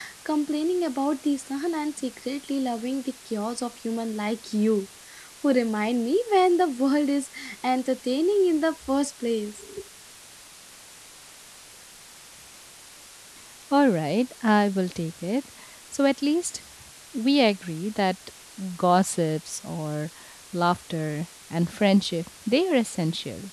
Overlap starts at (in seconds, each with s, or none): none